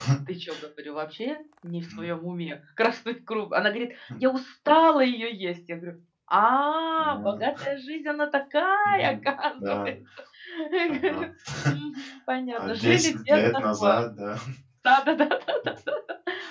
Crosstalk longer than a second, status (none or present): present